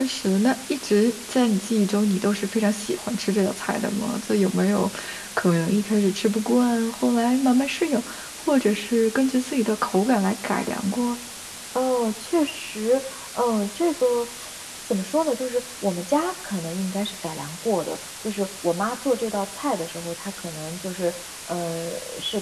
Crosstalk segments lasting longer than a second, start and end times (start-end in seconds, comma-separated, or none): none